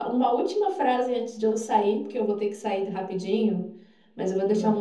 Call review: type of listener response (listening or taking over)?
listening